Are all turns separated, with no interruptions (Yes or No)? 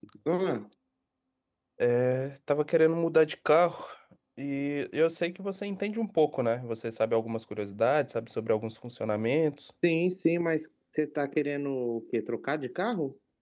Yes